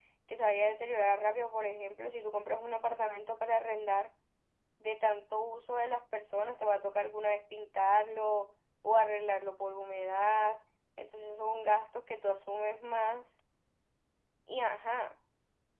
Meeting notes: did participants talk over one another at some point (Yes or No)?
No